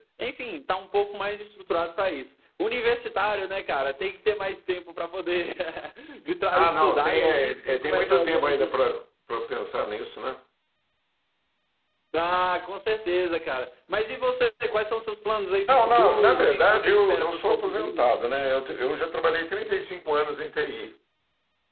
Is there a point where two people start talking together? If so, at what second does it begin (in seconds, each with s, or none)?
6.5 s